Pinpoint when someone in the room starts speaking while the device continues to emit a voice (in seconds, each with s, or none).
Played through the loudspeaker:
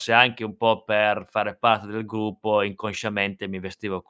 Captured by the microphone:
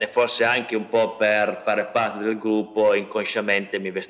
none